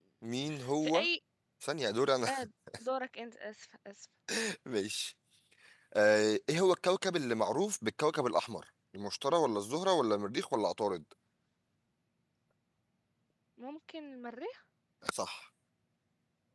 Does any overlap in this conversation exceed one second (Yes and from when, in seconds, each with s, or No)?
No